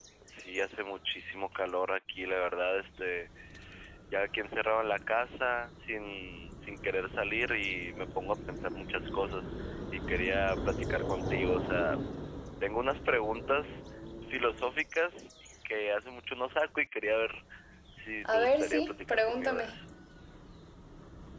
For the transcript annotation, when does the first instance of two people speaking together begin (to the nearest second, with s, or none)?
18 s